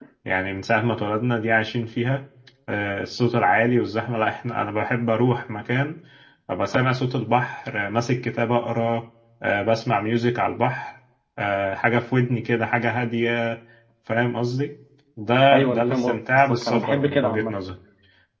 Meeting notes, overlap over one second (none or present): present